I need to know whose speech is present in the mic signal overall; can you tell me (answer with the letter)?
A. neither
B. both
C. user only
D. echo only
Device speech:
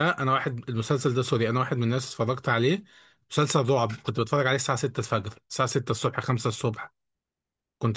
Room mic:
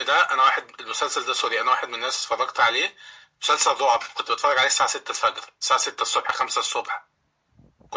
D